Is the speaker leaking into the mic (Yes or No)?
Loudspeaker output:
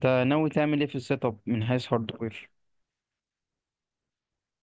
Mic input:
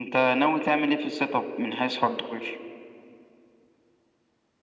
Yes